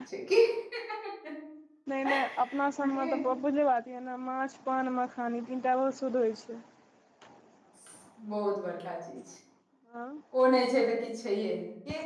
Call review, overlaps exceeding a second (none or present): none